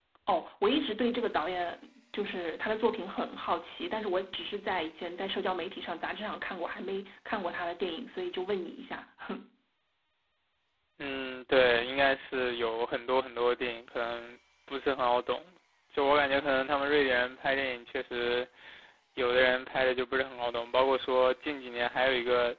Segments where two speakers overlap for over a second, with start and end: none

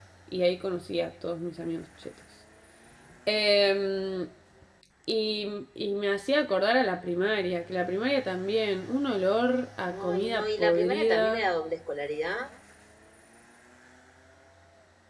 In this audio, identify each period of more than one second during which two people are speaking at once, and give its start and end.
10.1-11.5

